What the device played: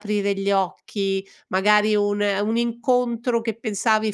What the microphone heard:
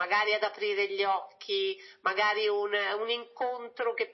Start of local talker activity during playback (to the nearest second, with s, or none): none